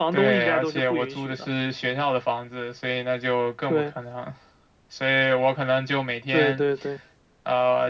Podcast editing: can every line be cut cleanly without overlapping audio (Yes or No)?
No